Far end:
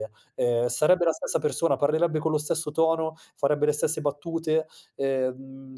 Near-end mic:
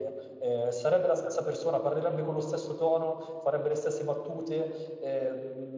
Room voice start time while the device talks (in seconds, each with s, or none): none